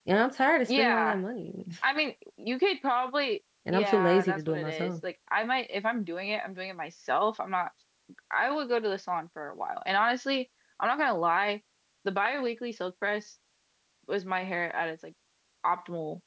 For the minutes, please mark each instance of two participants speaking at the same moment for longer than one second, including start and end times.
3.7-4.9

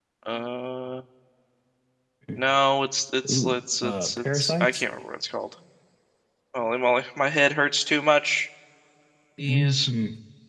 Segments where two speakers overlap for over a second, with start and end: 3.3-4.8

